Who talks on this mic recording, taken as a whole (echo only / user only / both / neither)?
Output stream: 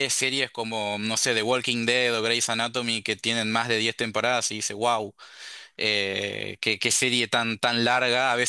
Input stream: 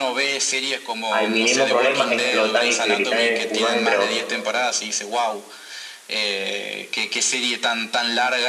both